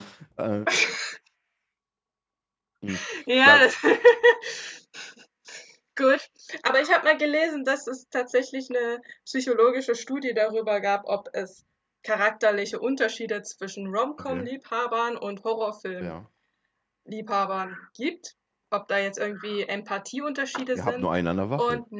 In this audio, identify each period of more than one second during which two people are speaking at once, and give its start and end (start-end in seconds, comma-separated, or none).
none